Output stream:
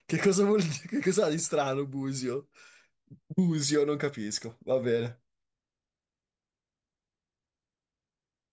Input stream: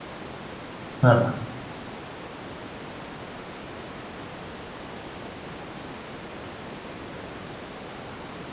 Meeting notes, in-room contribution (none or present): present